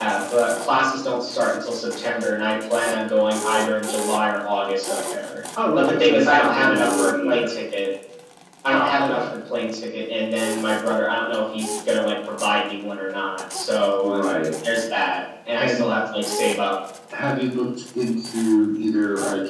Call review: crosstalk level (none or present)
present